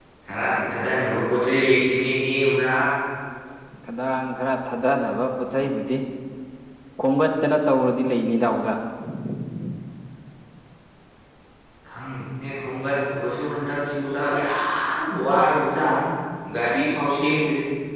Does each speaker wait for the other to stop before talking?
Yes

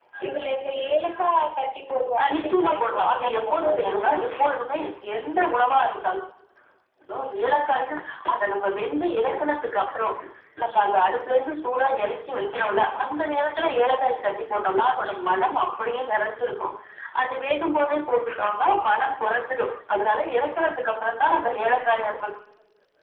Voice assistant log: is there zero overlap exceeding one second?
No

